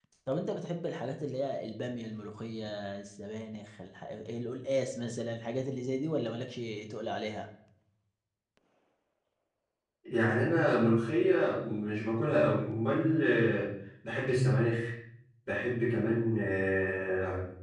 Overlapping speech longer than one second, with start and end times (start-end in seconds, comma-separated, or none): none